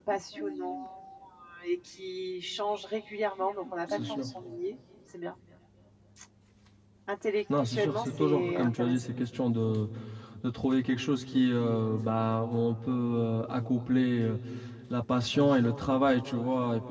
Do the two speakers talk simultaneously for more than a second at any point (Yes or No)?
Yes